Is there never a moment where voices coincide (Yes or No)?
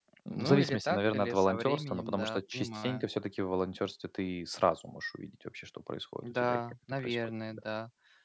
No